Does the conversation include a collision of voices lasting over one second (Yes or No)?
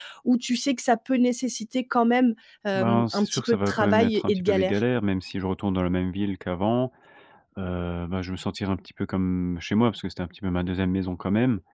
Yes